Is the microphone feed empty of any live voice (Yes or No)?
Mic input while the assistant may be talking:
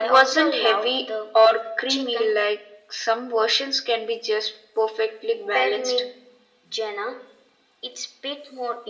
Yes